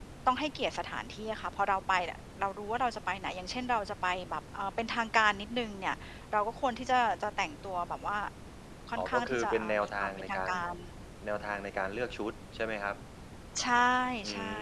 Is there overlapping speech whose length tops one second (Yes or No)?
Yes